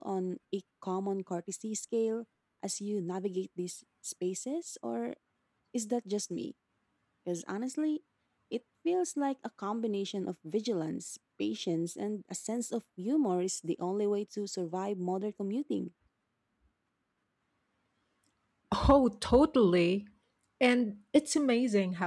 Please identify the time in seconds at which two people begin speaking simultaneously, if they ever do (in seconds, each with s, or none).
none